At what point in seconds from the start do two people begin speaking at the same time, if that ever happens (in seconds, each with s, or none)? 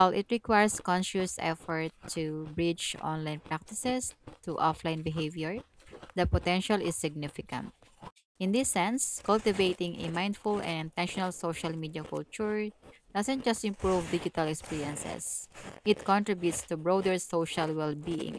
none